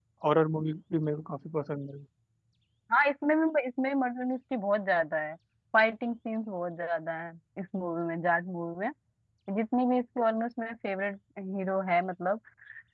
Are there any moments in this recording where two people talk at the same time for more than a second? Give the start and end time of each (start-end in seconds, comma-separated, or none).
none